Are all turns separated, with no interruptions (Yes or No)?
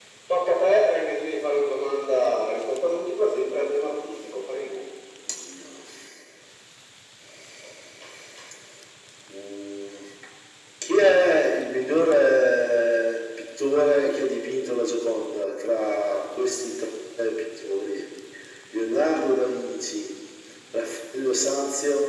Yes